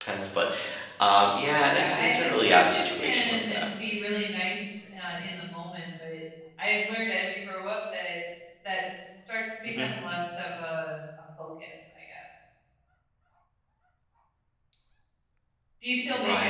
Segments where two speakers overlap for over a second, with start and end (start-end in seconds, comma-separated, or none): 1.7-3.6